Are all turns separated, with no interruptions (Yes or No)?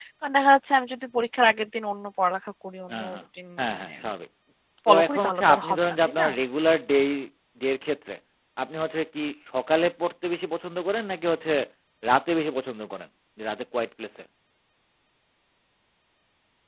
No